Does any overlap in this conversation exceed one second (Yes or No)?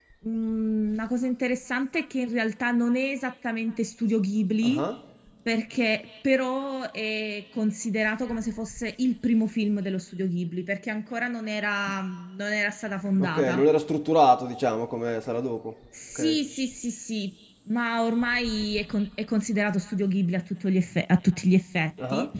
No